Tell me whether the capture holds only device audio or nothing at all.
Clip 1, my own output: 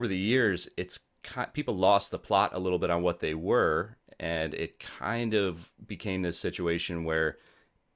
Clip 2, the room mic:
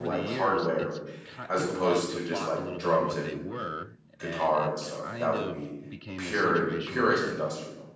No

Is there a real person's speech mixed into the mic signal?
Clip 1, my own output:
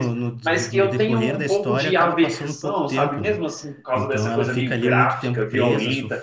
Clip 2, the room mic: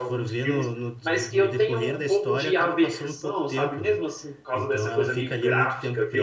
No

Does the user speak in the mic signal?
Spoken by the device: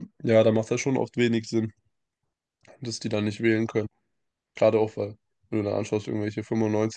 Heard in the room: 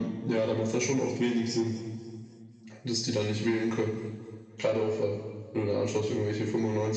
No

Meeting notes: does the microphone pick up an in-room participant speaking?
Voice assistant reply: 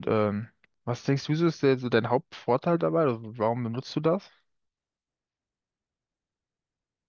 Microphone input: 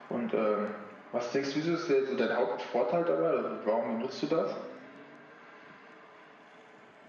No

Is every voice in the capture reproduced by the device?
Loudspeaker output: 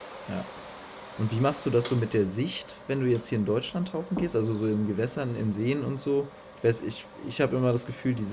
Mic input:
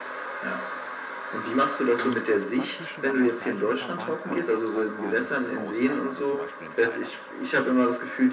No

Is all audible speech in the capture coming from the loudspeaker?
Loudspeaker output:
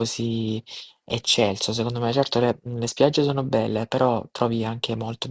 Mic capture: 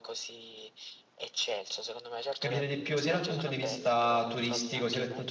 No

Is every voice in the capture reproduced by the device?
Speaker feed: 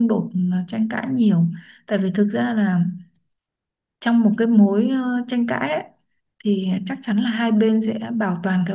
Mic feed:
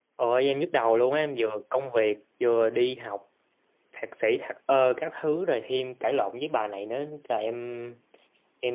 No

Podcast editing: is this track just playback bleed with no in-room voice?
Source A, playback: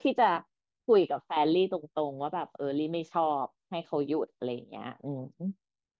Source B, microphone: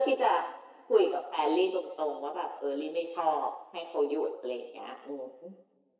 Yes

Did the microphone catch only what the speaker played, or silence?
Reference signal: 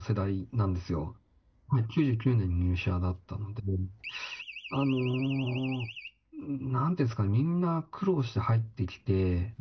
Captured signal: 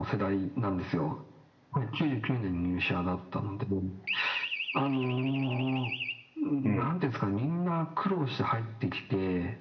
No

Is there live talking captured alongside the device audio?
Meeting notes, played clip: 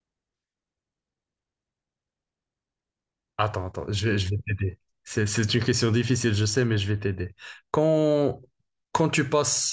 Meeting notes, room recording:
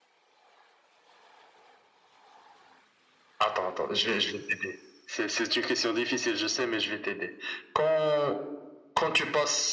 No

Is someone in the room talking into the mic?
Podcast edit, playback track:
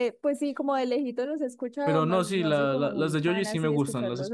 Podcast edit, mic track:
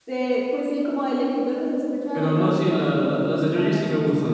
No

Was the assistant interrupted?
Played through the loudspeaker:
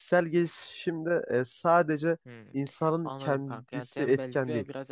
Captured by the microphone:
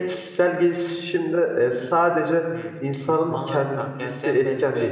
Yes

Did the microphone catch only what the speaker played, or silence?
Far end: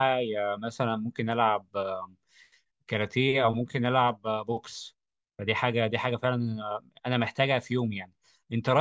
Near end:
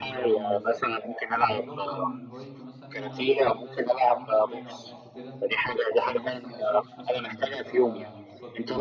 No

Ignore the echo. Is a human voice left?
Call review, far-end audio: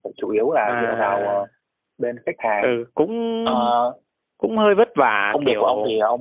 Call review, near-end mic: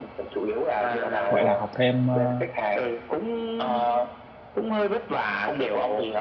Yes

